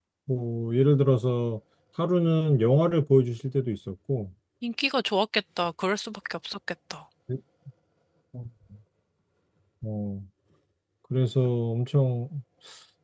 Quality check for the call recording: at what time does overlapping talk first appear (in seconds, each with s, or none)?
none